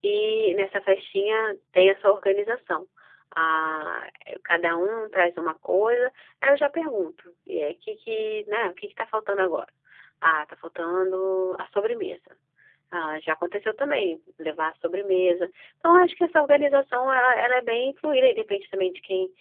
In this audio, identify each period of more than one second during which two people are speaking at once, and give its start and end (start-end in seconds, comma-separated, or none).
none